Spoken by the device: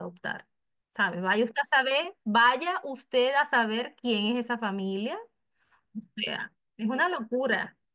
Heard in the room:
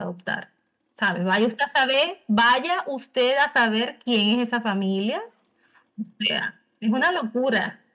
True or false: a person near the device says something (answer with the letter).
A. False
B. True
A